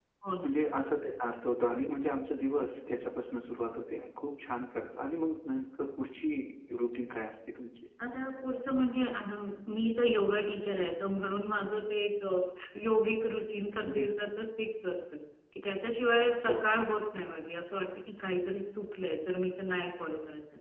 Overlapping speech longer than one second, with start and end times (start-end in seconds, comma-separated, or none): none